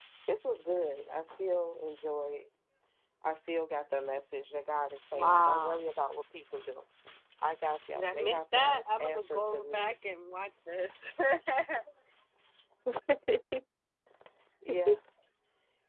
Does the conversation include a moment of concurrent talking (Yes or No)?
Yes